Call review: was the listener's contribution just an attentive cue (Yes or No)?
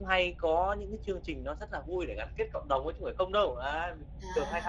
No